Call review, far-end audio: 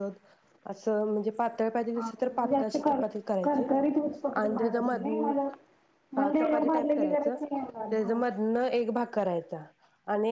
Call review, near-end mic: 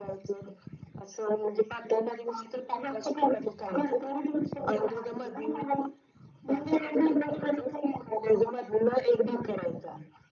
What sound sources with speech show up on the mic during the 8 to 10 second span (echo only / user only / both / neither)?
echo only